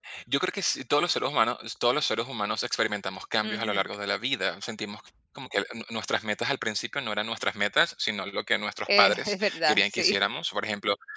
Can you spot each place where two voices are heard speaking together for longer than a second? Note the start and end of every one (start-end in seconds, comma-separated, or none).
8.9-10.2